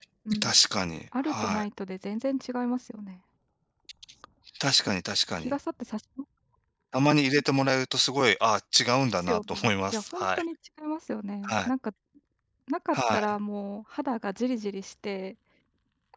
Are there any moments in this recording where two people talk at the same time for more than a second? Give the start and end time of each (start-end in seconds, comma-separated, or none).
9.2-10.4